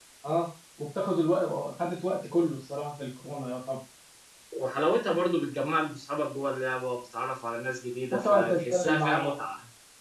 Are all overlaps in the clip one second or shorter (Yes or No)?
No